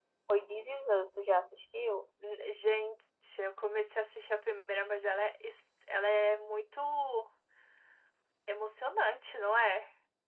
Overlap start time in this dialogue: none

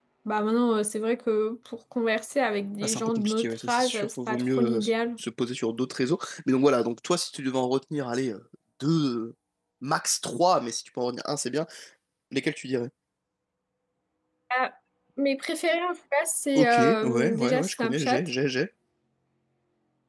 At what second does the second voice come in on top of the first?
2.8 s

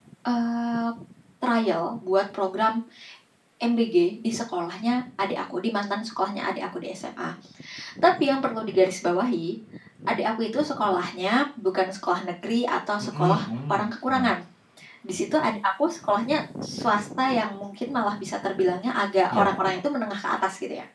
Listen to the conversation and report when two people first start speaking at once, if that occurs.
13.0 s

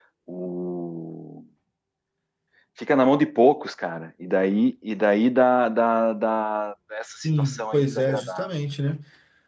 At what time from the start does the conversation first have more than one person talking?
7.2 s

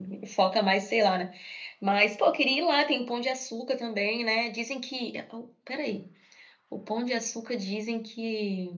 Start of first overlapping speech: none

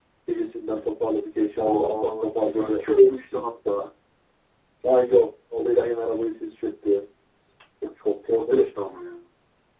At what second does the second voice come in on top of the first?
1.6 s

